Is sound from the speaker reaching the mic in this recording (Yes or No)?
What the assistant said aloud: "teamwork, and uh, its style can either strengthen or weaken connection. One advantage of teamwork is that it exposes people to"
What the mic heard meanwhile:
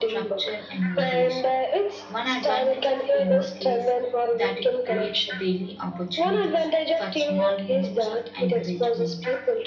Yes